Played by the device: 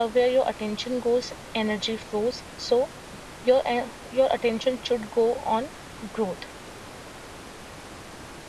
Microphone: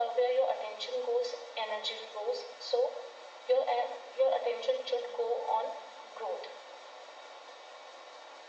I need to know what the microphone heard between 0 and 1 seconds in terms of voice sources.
echo only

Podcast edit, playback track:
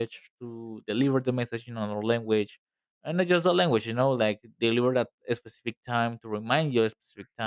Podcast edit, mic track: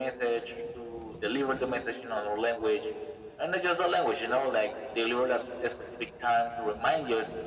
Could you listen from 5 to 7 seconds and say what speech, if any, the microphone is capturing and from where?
echo only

